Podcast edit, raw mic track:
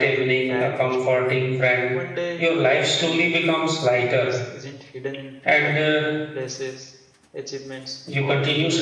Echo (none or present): present